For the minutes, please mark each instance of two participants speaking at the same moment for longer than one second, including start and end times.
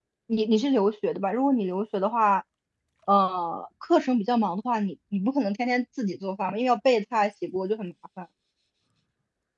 none

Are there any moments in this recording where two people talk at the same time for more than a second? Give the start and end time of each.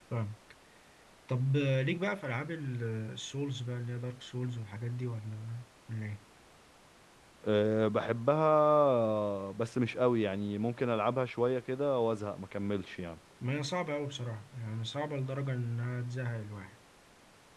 none

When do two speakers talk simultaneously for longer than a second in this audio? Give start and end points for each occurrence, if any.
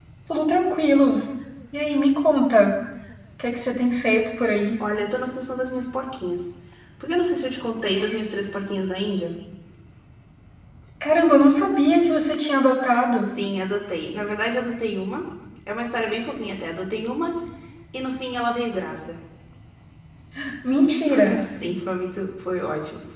none

